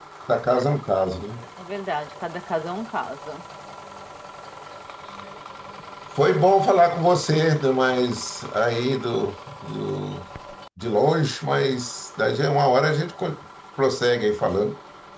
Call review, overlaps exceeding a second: none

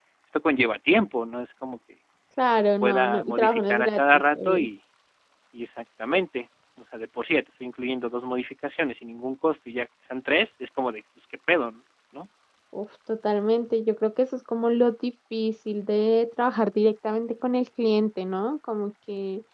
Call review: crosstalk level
present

